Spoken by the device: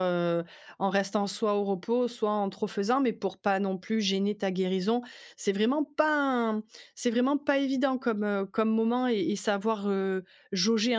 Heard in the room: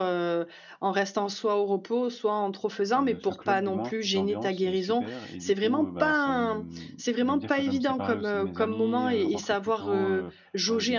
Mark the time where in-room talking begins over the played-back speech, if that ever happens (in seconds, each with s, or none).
2.9 s